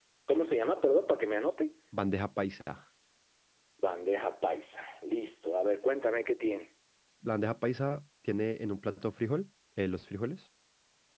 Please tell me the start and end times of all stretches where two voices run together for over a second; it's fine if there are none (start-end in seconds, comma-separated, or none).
none